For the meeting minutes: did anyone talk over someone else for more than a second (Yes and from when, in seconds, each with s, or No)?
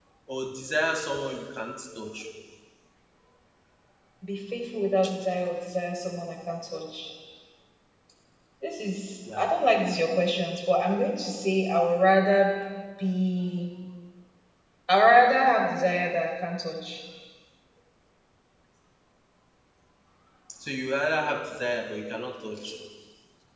No